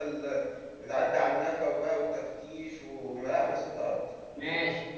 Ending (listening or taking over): taking over